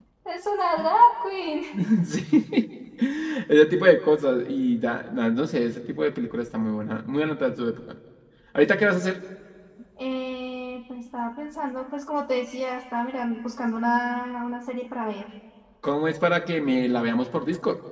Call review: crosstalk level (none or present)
none